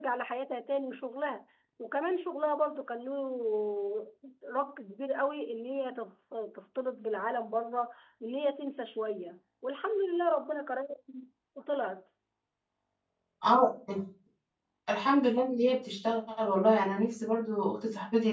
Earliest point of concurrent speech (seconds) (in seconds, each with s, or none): none